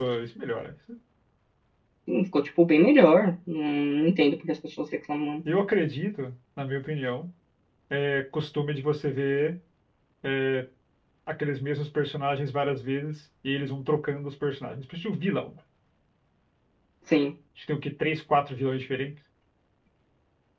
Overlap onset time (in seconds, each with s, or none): none